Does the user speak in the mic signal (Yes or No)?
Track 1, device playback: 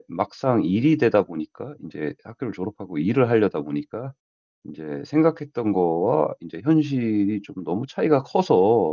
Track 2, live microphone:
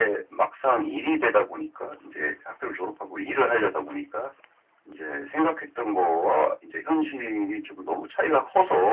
No